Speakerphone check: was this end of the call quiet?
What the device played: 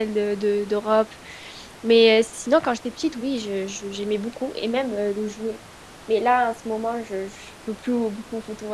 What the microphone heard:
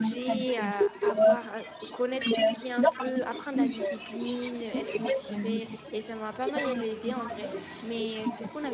No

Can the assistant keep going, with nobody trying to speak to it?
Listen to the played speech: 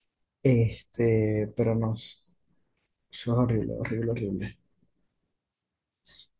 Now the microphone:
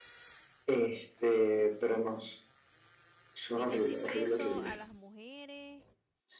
No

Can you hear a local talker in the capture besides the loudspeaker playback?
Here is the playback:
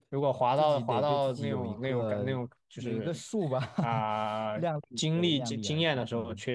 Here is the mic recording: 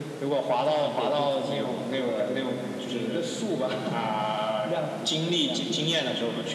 No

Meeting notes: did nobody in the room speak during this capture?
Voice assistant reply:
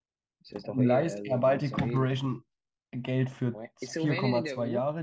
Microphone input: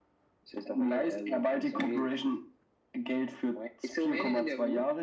Yes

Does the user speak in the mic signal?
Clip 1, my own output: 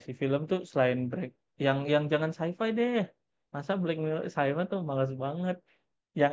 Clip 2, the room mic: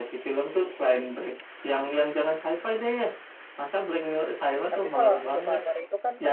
Yes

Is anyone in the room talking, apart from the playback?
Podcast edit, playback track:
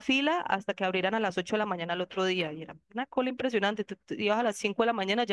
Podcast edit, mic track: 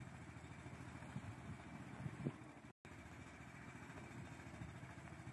No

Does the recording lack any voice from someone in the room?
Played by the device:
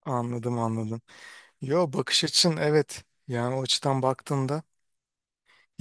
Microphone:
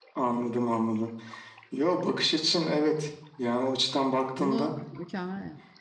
No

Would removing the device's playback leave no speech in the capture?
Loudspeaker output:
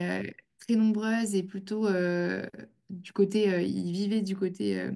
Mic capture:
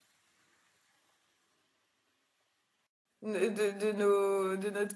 No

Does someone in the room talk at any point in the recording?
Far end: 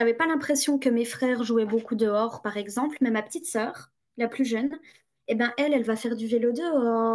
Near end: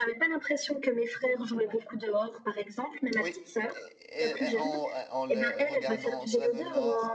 Yes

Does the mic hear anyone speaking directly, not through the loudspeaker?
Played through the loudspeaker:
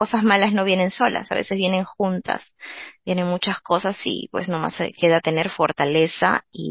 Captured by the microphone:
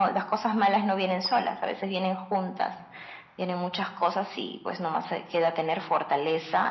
No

